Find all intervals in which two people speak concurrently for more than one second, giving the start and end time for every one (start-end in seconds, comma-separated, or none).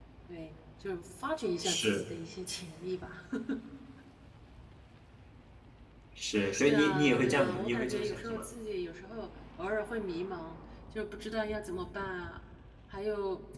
6.7-8.5